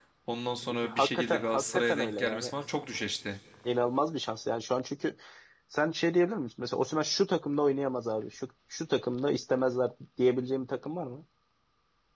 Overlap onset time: 1 s

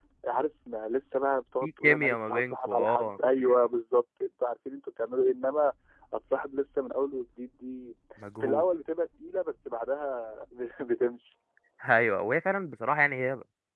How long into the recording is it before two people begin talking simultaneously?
2 s

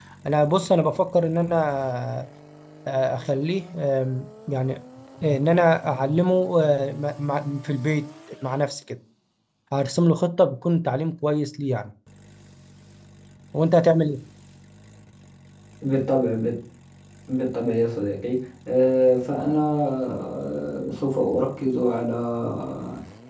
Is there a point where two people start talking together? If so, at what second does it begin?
none

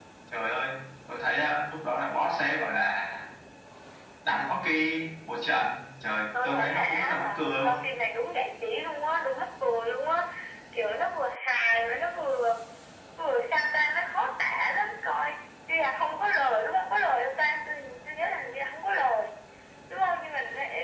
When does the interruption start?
6 s

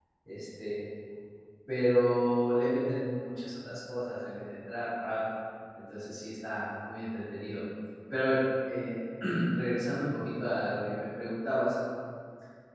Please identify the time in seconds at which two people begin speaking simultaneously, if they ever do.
none

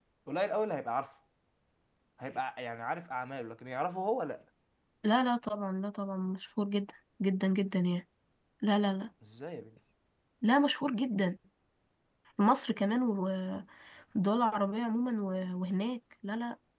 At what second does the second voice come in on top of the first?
none

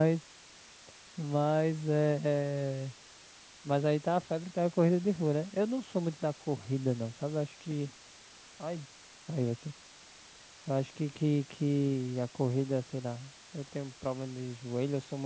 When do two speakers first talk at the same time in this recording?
none

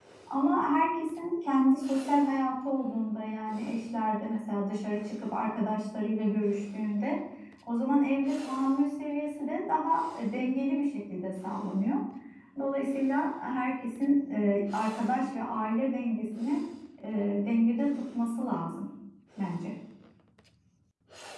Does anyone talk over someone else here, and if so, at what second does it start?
none

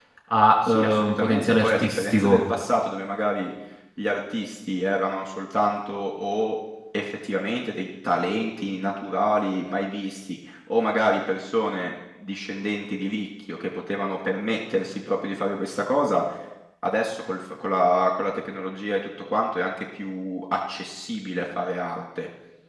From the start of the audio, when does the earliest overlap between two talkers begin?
1 s

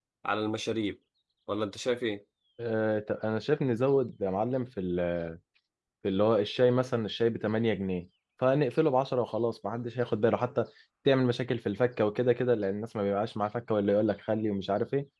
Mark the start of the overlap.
none

